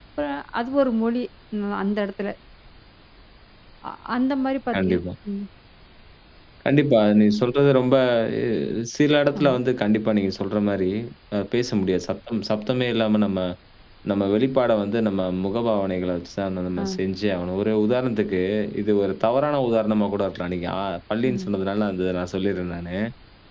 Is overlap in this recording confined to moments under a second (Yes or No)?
Yes